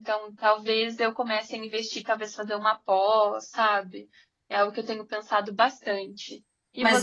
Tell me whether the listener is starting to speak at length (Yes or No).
Yes